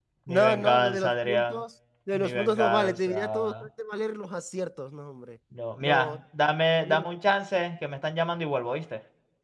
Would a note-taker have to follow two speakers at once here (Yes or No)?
Yes